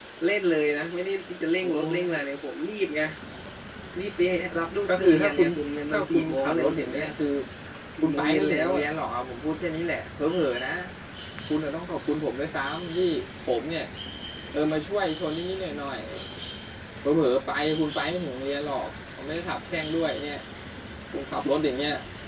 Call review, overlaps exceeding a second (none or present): present